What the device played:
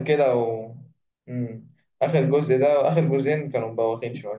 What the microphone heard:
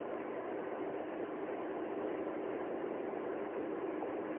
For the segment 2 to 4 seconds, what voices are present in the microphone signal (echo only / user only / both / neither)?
neither